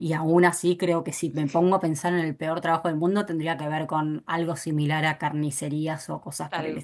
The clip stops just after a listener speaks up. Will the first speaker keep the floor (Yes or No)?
Yes